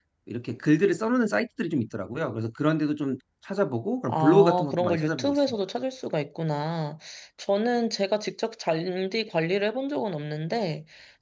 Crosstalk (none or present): present